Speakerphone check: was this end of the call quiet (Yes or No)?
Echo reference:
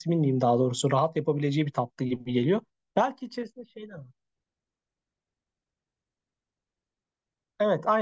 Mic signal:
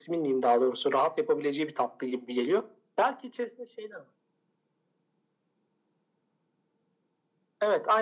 Yes